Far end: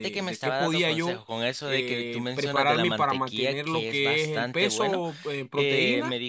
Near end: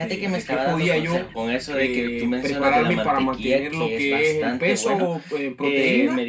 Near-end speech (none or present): none